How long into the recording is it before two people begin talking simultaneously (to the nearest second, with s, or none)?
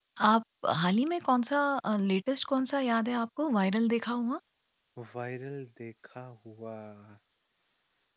none